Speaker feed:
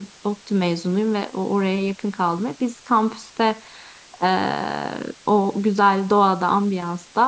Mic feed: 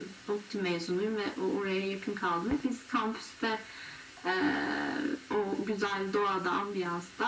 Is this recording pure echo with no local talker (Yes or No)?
Yes